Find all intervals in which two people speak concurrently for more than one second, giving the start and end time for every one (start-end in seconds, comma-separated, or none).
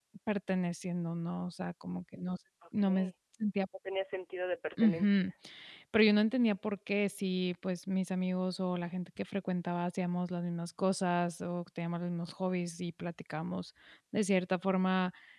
none